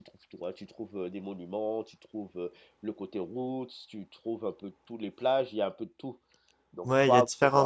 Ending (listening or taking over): taking over